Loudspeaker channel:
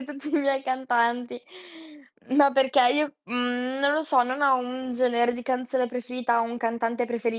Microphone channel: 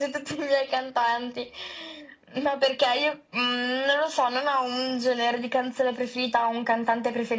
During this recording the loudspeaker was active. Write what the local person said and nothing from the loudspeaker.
none

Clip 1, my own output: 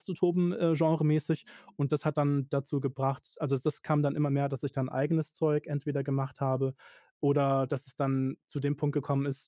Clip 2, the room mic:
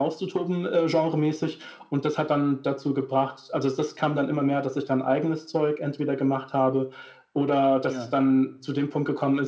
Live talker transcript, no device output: Ja.

